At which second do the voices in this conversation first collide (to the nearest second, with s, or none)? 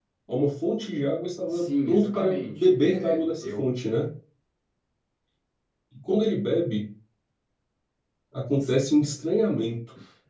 2 s